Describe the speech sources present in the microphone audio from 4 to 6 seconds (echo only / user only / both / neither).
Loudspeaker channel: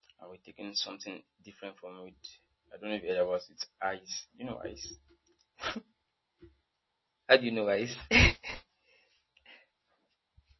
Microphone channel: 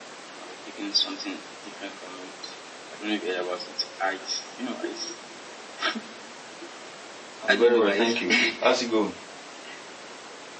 echo only